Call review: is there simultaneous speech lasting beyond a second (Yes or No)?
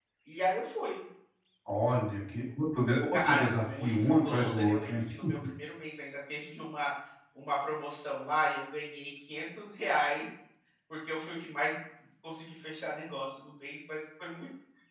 Yes